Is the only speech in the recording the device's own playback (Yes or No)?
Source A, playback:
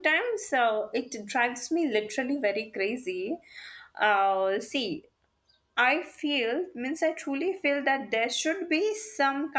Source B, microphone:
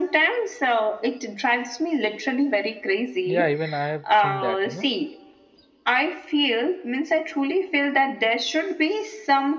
No